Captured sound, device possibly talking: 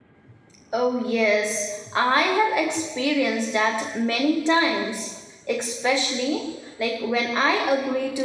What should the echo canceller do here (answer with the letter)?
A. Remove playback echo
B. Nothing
B